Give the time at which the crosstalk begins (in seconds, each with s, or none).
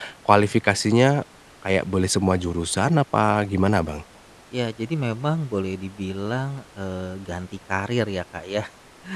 none